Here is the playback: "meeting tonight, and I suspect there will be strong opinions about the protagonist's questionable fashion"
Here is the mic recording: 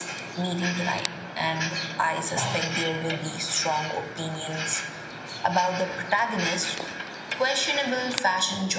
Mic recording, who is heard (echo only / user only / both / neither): echo only